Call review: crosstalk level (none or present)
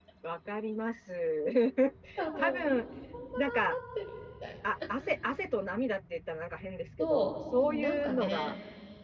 present